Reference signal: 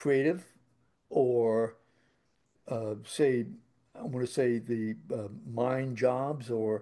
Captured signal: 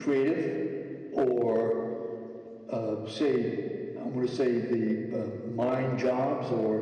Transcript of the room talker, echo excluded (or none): none